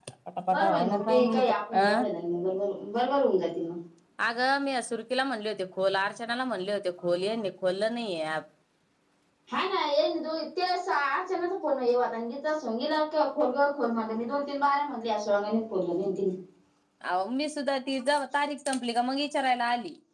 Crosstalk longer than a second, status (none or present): present